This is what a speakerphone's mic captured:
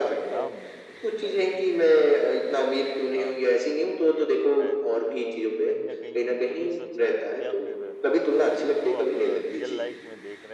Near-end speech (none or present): present